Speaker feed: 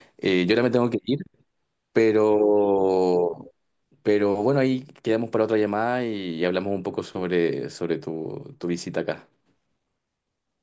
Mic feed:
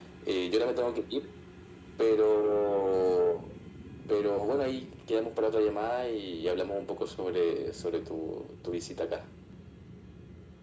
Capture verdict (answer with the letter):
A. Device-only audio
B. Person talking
A